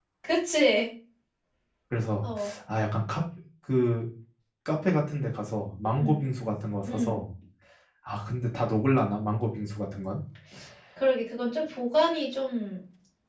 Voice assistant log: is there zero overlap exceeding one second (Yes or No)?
Yes